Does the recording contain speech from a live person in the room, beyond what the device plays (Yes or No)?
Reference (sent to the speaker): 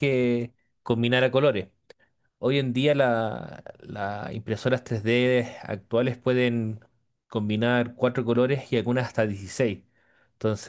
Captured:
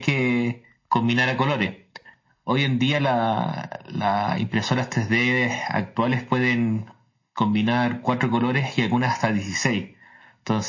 No